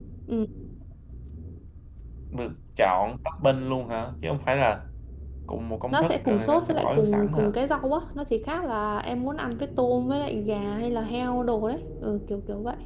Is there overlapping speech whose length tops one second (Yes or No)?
Yes